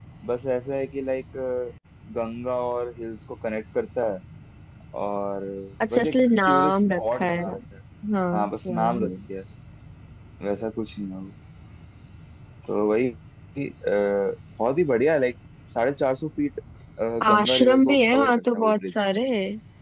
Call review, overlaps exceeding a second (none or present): present